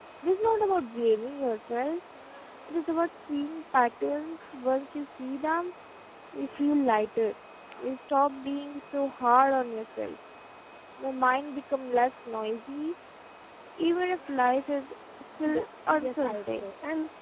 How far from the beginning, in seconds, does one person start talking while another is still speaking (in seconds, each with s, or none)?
15.5 s